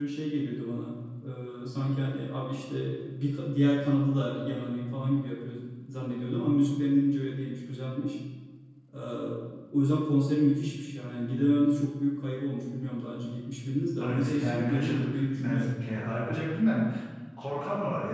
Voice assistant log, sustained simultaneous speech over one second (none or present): present